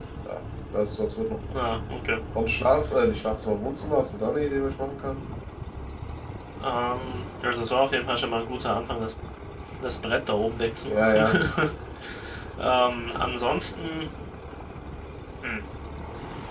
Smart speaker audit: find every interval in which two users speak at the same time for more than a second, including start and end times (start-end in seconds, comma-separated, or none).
none